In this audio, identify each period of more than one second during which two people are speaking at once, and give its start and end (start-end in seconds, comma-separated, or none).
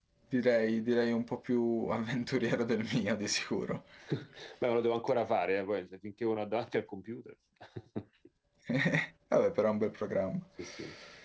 none